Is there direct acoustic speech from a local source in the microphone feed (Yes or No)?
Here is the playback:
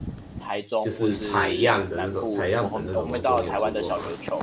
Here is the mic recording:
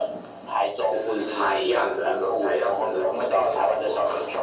No